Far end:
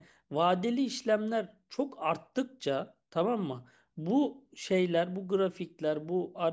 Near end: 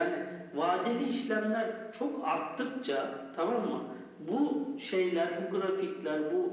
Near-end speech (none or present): none